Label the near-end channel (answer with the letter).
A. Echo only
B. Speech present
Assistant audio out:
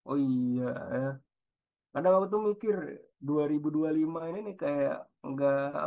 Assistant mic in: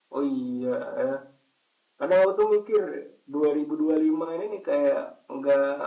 A